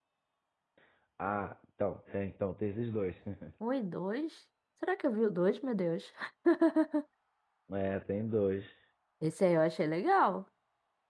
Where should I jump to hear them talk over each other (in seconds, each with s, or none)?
none